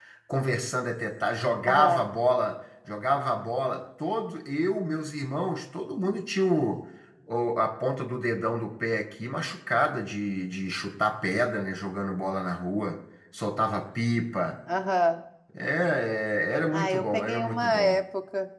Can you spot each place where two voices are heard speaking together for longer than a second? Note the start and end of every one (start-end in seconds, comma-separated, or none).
16.7-18.0